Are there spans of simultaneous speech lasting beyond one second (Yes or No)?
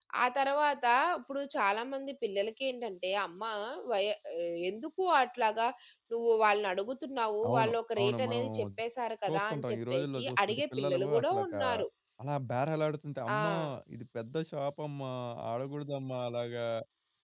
Yes